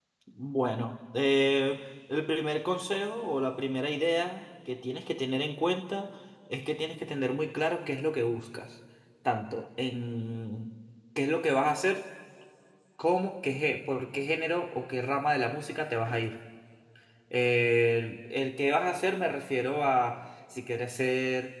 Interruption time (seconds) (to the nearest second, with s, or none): none